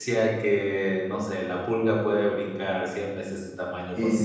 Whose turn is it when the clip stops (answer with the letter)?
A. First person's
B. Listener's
A